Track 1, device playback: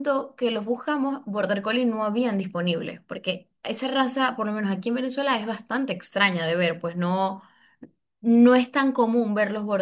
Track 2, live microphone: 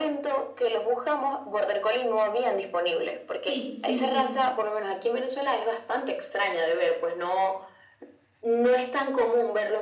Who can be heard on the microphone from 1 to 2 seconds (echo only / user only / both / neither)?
echo only